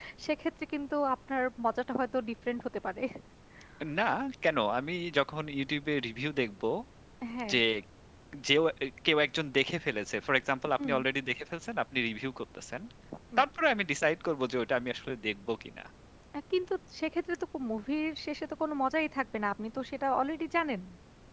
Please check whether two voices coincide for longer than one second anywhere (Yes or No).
No